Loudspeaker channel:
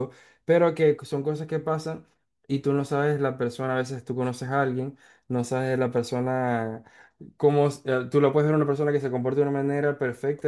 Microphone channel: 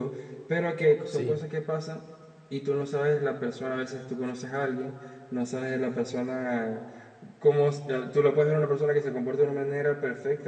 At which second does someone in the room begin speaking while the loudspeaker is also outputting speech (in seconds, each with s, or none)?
1.1 s